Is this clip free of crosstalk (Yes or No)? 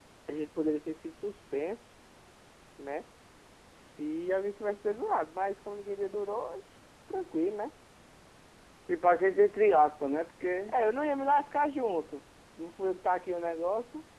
Yes